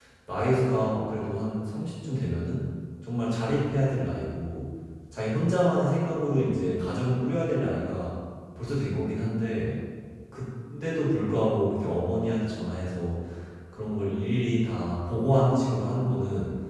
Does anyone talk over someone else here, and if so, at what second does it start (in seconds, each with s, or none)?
none